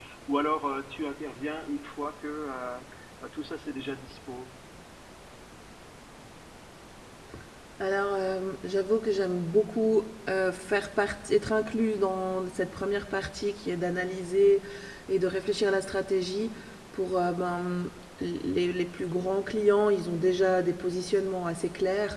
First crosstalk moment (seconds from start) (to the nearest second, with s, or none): none